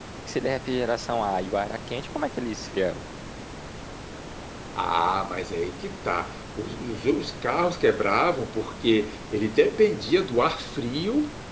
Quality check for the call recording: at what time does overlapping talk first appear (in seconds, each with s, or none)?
none